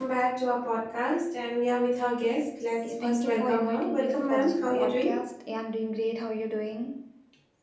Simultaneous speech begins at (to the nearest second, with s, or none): 3 s